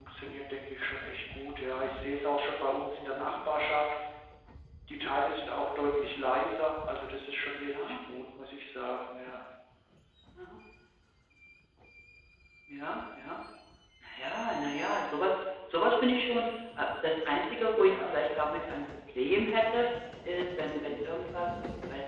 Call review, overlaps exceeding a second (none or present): none